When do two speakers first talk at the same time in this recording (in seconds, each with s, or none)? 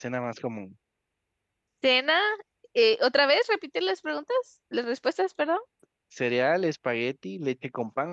none